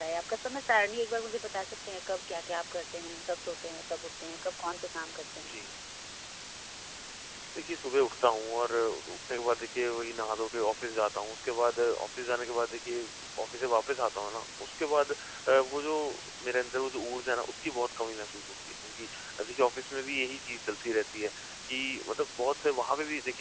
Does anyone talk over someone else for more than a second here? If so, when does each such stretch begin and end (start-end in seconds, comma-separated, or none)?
none